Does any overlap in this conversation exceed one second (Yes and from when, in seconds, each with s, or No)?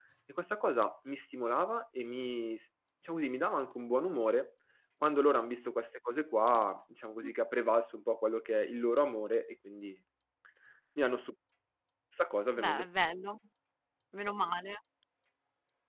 No